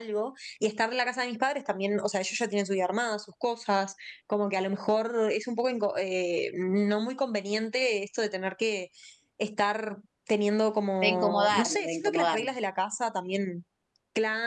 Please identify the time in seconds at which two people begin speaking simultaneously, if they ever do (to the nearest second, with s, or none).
11 s